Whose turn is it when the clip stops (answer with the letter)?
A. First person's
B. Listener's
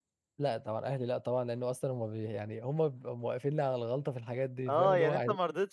B